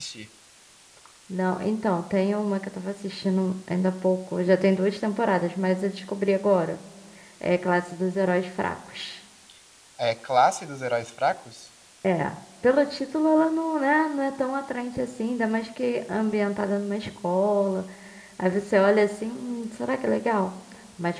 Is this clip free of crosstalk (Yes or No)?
Yes